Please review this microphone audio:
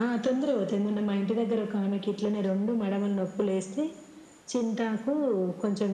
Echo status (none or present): present